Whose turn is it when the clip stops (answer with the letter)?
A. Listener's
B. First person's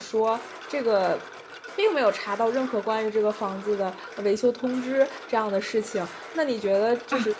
B